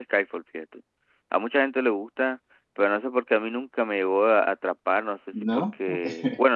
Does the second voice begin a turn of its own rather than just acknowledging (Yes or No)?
No